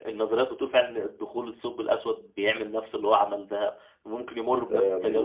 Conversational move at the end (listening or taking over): taking over